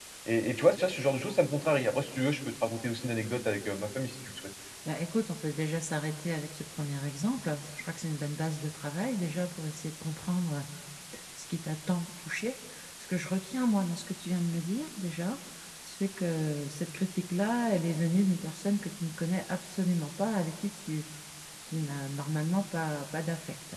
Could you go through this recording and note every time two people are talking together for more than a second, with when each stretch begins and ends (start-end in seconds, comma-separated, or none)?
none